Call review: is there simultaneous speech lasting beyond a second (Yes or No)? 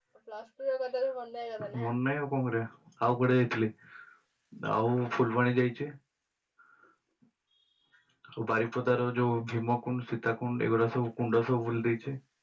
No